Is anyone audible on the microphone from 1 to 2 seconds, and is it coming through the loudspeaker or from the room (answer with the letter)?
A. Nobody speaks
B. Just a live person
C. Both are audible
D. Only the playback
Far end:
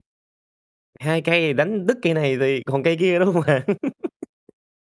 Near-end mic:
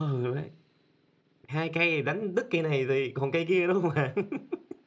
D